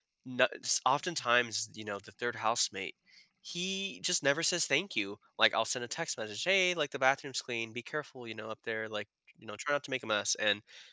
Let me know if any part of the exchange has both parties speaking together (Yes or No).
No